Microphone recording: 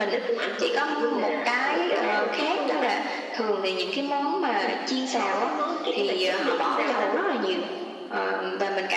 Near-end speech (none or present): present